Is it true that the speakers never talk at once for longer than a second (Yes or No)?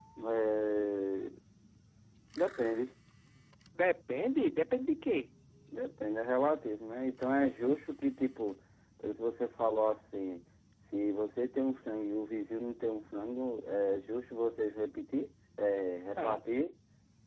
Yes